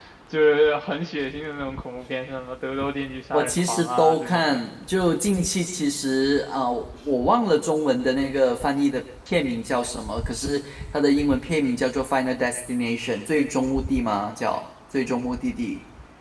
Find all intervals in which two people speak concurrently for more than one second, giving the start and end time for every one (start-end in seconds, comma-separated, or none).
3.3-4.6